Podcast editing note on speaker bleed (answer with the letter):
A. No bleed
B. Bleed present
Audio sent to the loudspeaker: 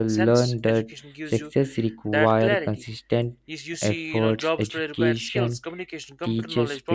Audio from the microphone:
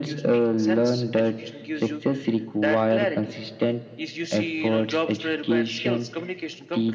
B